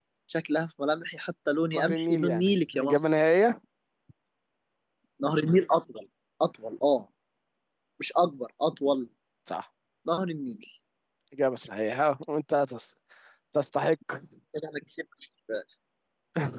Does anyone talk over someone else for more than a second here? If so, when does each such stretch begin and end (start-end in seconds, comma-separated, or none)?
1.8-3.1